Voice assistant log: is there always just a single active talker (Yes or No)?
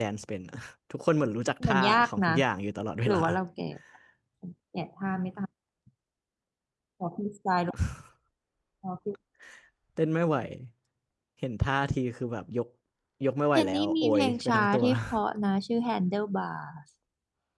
No